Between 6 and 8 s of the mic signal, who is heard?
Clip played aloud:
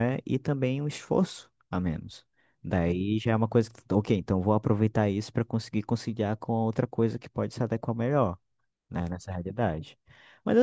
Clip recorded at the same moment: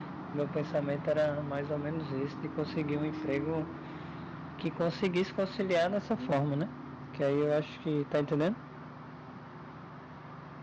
user only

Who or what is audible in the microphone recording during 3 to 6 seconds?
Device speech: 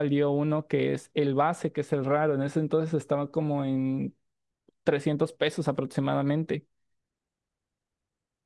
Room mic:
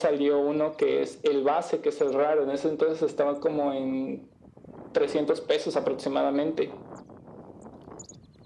echo only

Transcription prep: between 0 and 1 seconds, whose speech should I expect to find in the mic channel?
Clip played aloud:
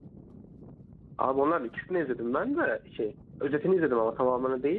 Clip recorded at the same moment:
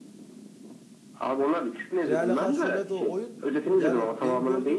neither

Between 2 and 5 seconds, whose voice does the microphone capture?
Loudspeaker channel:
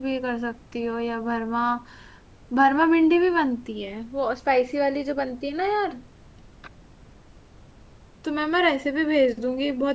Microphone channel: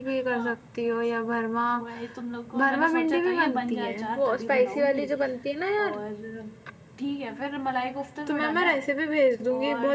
both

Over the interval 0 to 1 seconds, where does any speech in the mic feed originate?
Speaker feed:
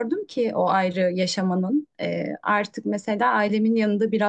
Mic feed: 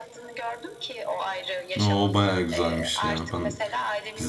echo only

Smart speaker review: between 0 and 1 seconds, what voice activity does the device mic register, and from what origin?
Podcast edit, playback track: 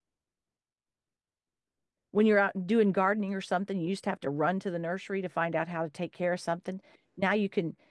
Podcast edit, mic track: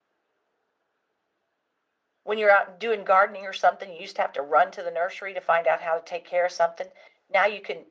neither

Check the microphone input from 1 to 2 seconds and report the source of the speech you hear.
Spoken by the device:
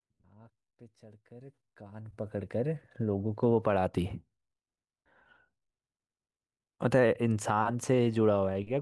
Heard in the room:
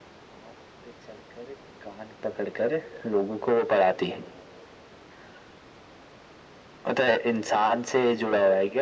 echo only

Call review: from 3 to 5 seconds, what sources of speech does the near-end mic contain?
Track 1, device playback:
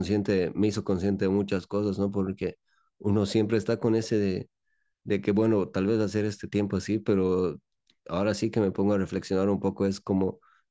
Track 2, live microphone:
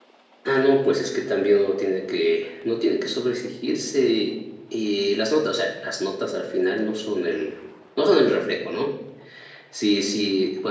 user only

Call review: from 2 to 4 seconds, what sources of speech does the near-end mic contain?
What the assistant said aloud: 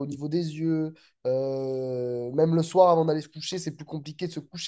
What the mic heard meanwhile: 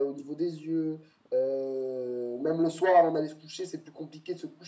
echo only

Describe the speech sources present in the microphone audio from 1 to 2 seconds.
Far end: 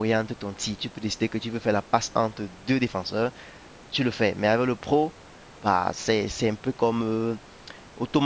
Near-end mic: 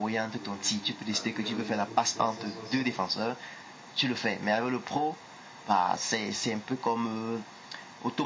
both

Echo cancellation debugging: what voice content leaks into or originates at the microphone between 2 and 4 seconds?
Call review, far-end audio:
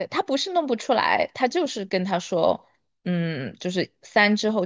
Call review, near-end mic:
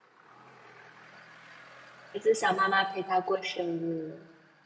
user only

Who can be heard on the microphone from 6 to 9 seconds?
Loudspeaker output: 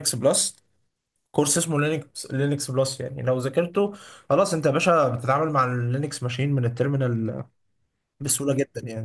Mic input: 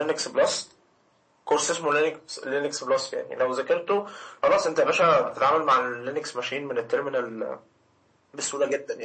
echo only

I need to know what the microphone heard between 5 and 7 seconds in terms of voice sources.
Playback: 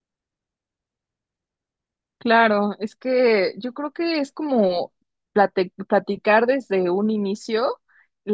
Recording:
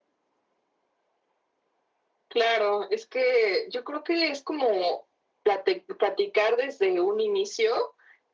echo only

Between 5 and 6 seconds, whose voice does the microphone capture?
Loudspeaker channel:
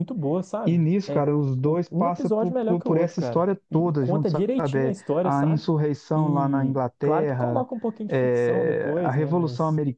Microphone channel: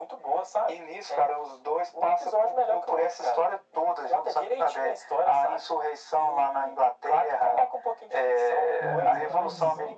echo only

